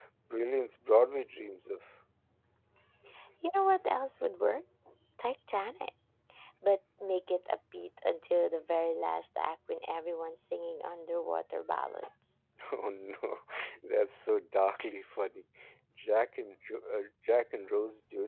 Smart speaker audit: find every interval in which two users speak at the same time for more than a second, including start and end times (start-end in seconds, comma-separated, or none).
none